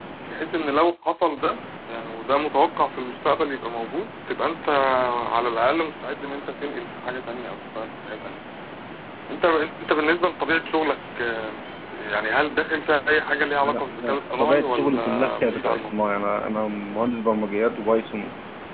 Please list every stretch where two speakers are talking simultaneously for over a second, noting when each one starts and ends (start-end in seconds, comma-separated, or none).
13.6-15.9